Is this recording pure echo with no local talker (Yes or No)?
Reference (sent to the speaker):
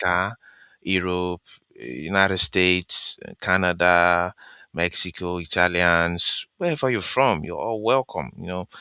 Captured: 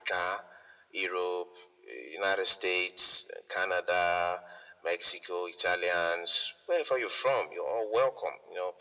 Yes